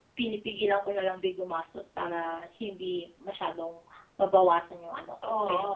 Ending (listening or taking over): taking over